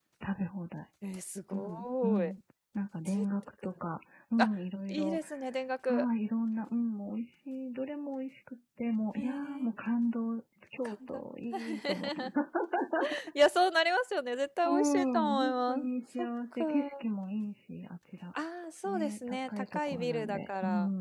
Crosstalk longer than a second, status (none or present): present